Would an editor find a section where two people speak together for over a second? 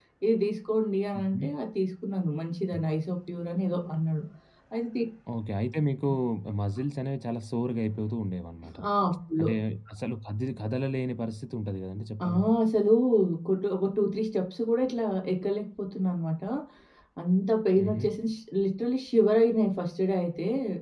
No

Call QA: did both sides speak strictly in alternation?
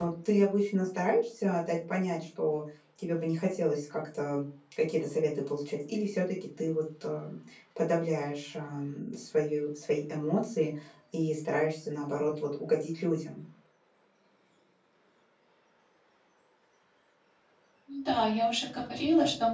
Yes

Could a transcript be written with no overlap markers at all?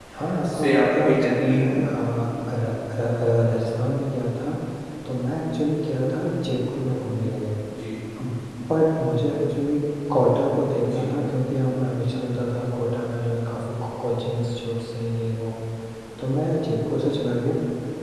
No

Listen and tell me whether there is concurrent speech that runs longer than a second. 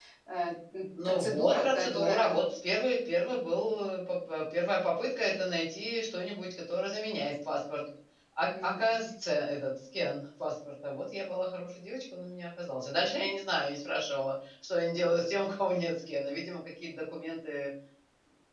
Yes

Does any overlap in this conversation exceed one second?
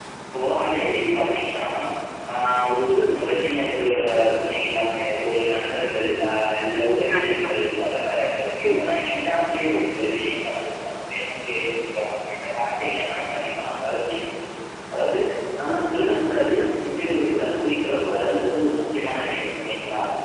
No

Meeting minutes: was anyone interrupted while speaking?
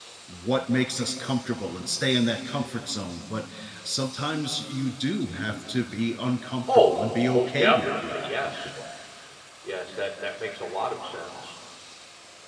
Yes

